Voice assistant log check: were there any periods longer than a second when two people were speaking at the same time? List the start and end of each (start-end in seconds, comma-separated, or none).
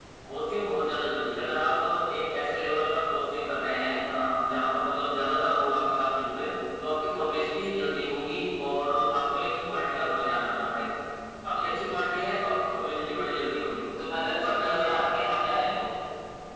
14.4-15.8